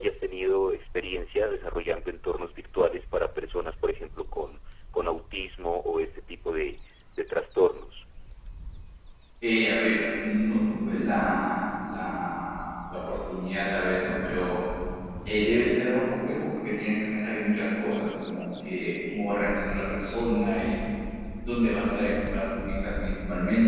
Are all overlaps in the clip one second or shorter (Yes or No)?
Yes